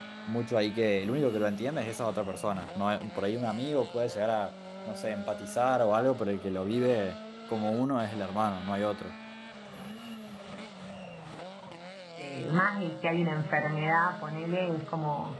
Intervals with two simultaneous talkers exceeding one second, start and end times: none

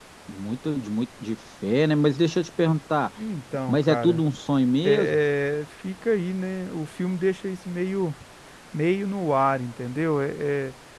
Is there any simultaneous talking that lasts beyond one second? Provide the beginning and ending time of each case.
none

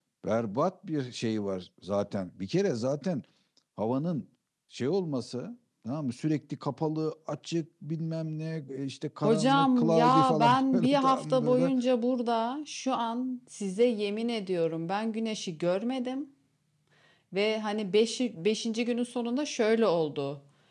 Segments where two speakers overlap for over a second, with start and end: 9.2-11.7

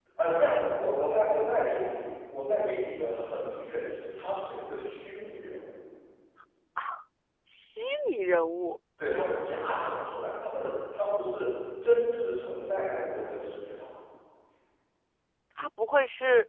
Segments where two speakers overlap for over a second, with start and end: none

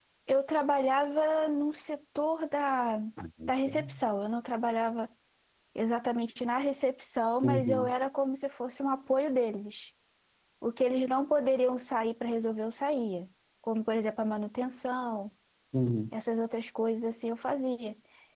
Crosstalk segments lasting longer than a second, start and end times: none

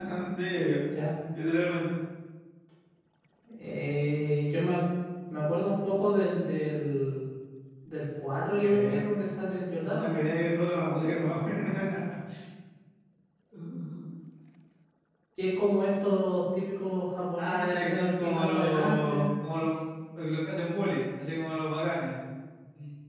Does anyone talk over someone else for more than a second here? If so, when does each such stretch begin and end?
17.4-19.3

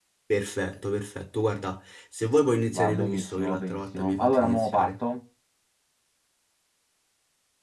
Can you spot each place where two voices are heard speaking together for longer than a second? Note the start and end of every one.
2.7-4.9

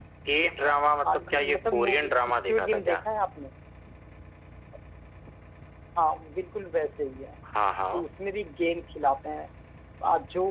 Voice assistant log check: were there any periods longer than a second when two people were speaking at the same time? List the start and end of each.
1.1-3.0

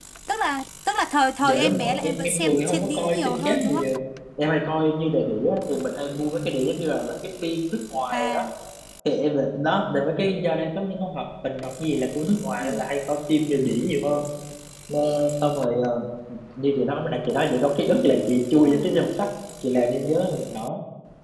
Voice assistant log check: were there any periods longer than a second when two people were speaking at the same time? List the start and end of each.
1.4-3.8

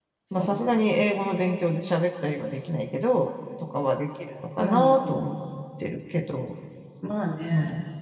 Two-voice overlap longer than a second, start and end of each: none

